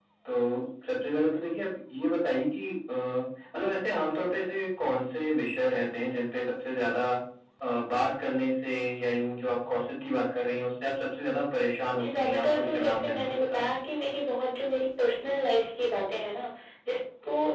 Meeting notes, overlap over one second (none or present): present